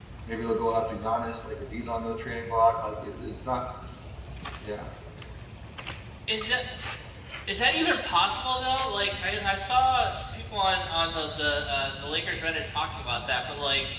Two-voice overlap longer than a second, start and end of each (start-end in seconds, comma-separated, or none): none